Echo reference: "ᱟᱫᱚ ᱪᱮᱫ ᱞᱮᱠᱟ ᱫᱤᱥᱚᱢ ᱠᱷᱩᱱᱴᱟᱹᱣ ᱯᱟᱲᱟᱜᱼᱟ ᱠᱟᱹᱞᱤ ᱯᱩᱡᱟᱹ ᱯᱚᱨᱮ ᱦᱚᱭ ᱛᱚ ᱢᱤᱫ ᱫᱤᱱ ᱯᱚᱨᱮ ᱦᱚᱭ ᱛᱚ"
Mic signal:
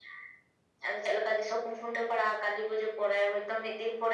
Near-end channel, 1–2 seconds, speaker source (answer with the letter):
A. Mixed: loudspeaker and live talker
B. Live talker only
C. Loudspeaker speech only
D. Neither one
C